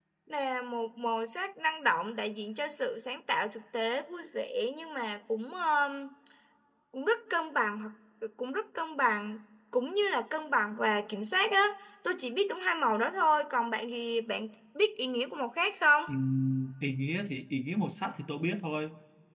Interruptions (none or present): none